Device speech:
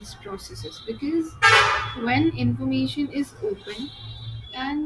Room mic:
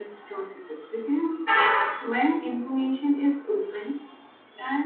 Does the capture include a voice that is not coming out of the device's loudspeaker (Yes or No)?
No